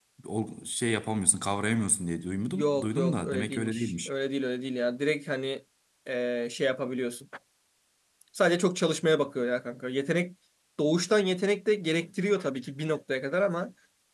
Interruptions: present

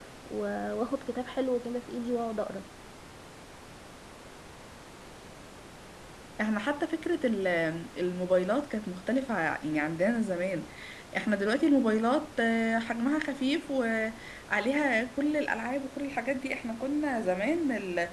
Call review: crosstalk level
none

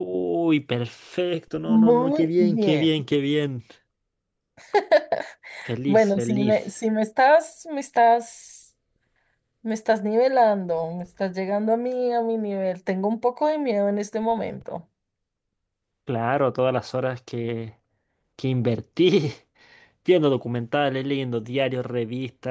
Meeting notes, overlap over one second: present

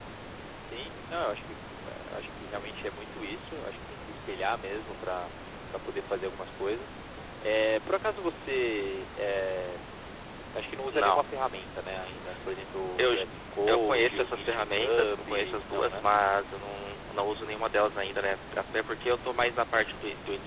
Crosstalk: present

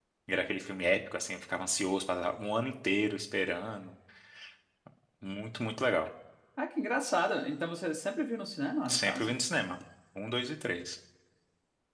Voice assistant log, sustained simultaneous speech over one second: none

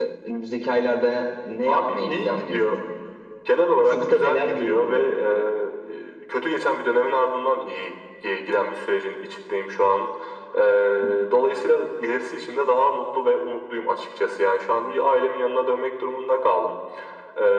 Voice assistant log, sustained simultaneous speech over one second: present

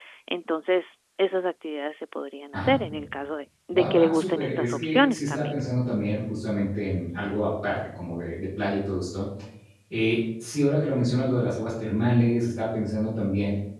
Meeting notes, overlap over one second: present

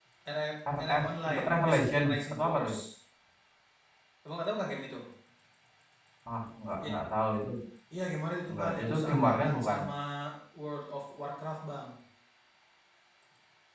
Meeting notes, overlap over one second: present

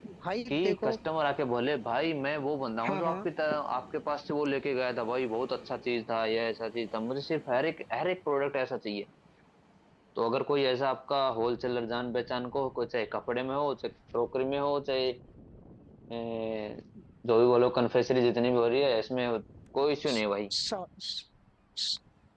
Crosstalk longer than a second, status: none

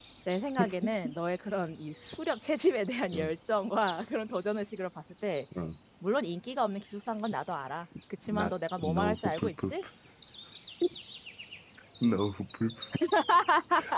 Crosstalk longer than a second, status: present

